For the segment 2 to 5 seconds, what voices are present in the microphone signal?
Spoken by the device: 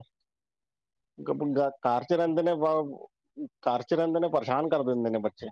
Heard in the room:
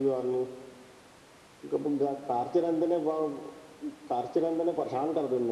echo only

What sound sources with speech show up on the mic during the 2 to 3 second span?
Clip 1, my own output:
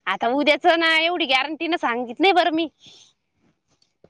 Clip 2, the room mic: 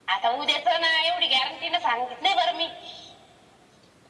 echo only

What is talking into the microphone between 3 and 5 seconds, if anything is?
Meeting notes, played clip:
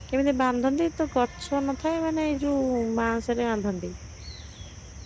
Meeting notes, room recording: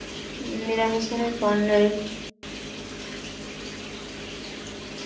neither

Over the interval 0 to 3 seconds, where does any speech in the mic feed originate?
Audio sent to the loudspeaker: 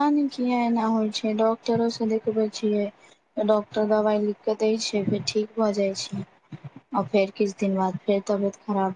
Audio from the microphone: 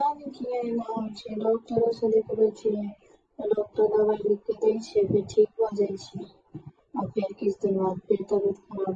echo only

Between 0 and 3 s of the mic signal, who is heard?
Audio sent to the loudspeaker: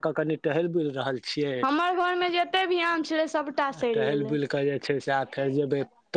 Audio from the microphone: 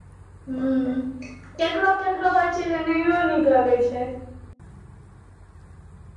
user only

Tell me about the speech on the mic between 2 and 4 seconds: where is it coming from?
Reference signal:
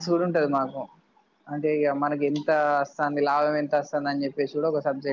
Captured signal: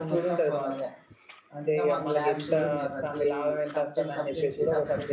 both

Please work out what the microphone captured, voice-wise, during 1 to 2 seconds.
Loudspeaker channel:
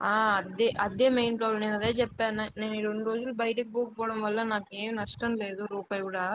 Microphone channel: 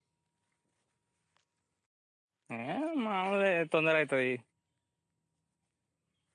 neither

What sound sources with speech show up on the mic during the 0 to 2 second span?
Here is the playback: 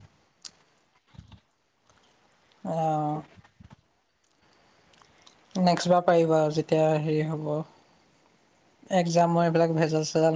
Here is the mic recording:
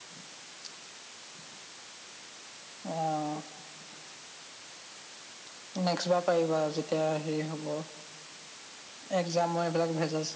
neither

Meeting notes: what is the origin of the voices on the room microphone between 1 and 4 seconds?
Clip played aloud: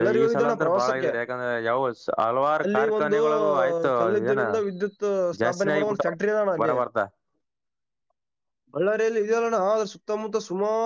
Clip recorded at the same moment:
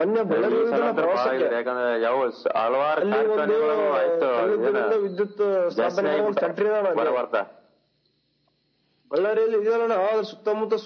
echo only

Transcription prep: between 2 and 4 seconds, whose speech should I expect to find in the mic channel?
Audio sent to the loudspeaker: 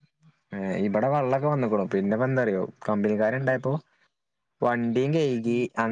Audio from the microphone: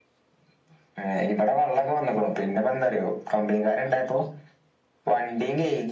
echo only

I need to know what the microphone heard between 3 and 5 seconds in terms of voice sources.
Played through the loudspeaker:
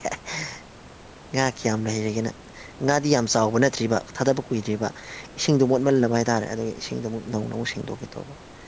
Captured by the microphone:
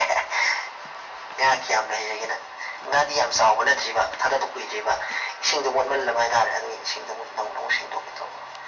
echo only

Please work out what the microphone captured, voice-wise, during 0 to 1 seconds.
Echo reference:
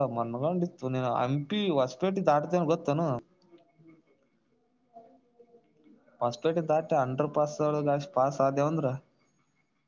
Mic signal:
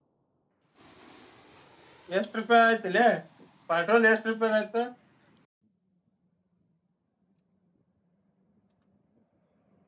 neither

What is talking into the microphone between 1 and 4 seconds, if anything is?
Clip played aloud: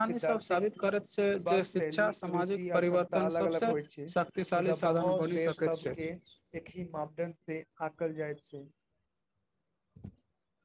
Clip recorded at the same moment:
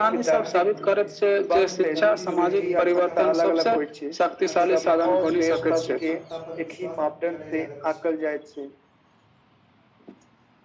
both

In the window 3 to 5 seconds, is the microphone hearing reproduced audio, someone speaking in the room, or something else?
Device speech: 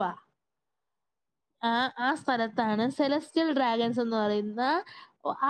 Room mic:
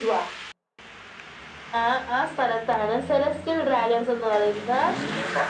echo only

